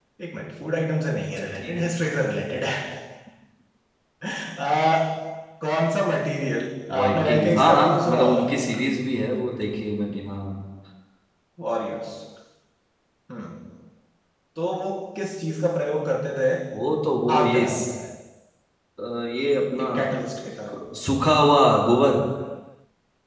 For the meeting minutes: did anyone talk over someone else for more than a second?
Yes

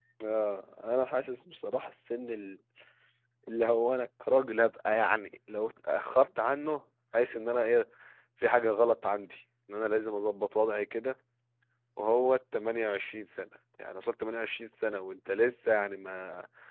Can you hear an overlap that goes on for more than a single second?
No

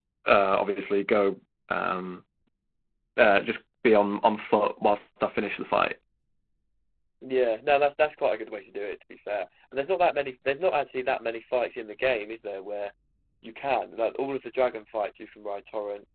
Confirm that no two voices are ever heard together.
Yes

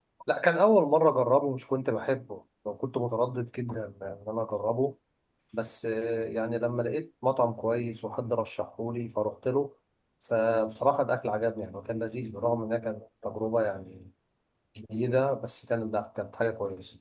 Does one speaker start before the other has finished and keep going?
No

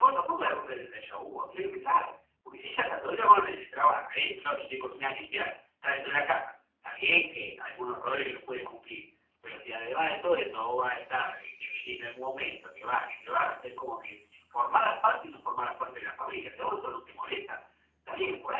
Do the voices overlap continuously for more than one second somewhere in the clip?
No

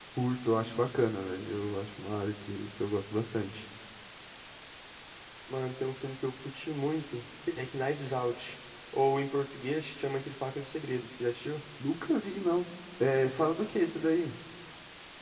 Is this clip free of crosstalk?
Yes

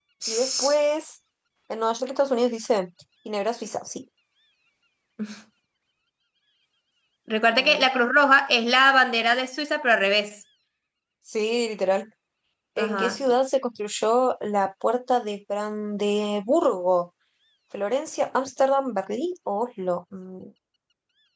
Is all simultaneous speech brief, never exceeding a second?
Yes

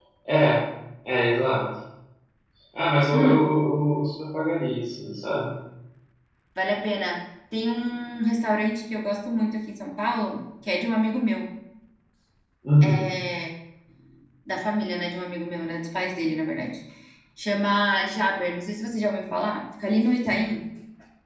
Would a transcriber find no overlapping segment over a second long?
Yes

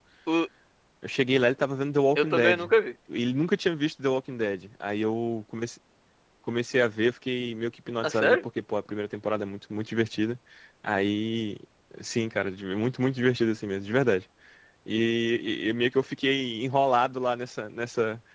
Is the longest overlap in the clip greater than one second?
No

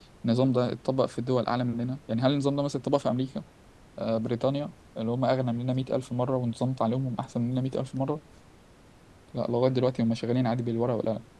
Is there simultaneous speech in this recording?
No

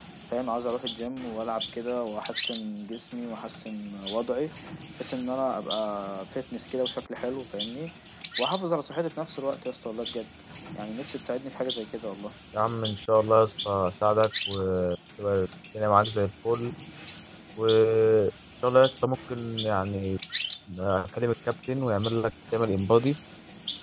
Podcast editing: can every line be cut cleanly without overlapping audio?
Yes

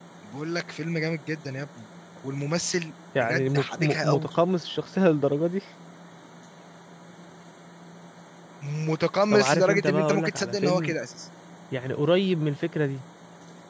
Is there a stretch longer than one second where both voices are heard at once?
Yes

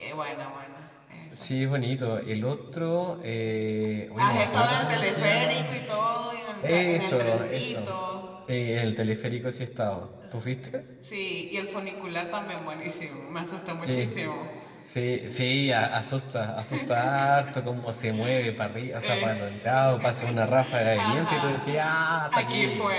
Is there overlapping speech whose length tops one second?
Yes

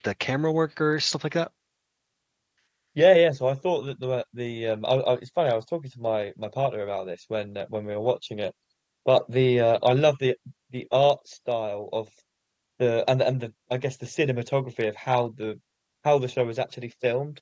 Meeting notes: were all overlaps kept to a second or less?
Yes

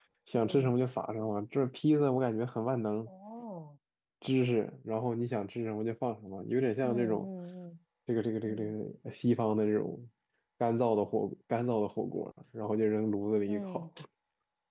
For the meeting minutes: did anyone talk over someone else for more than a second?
No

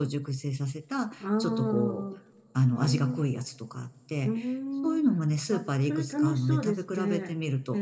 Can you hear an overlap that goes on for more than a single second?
Yes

